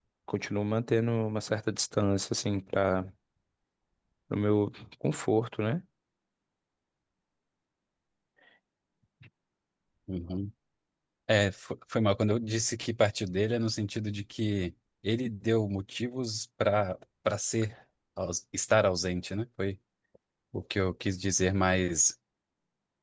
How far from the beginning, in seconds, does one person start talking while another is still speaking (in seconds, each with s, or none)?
none